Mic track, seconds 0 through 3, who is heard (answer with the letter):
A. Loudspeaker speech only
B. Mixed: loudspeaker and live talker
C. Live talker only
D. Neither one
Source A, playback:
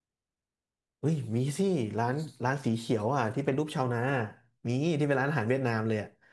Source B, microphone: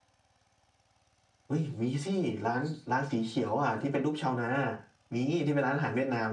A